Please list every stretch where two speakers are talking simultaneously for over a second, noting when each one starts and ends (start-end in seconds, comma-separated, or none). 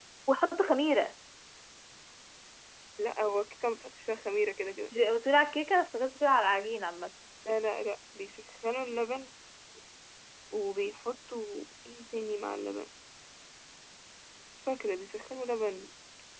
none